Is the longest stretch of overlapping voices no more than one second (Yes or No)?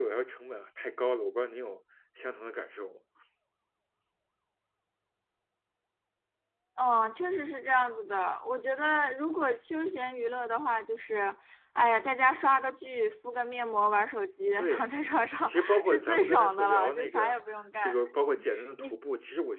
No